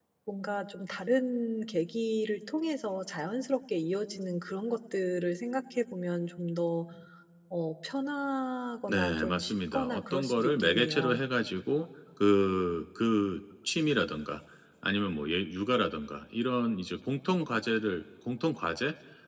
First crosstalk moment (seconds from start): 8.9 s

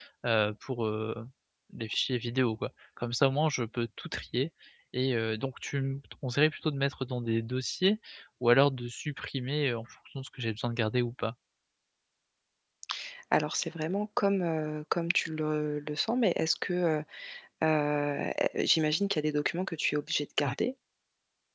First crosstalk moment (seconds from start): none

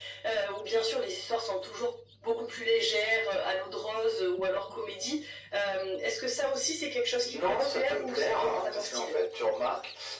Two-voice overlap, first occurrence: 7.2 s

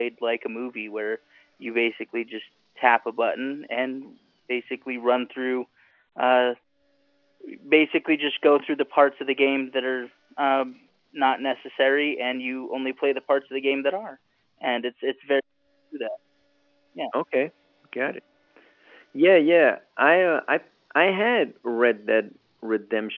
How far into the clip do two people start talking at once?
none

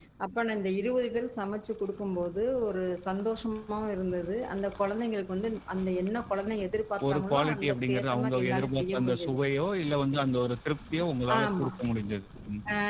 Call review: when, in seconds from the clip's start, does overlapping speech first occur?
7.1 s

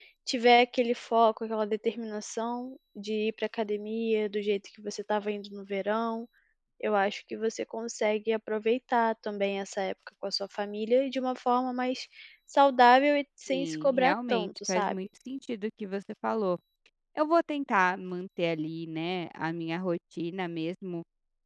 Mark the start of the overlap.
13.5 s

